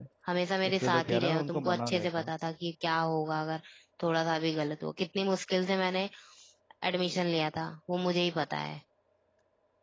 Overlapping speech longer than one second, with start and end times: 0.7-2.3

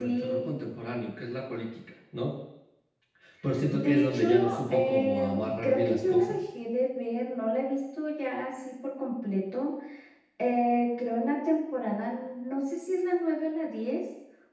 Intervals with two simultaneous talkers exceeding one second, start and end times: 3.7-6.4

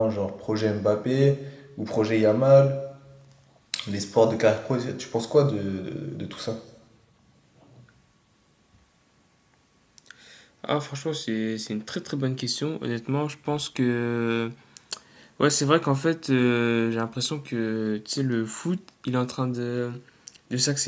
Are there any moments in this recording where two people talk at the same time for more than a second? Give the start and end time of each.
none

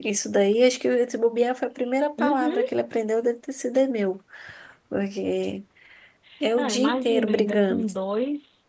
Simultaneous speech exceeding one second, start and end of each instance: 6.6-7.9

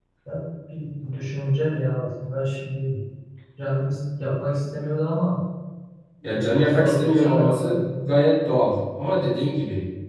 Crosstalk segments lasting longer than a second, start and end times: 6.3-8.1

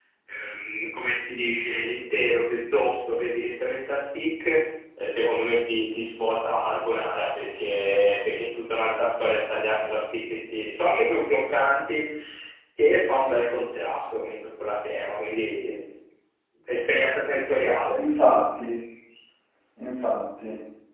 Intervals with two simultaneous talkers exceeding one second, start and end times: none

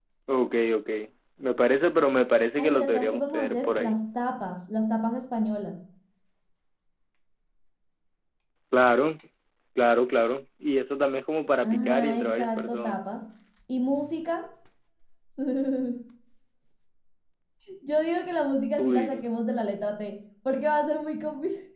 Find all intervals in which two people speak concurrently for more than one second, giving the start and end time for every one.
2.6-4.0, 11.6-13.0

